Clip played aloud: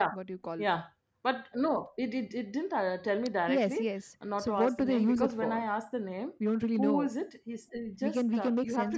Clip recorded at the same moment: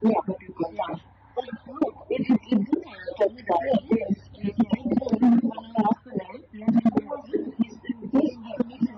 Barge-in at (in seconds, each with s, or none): none